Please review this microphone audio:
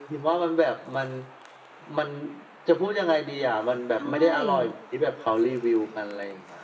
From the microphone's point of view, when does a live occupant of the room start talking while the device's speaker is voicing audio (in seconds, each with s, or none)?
3.9 s